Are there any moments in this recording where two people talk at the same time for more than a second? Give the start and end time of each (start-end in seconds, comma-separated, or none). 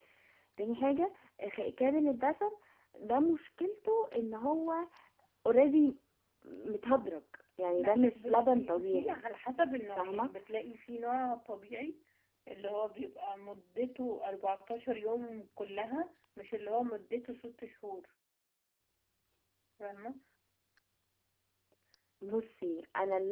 7.8-9.2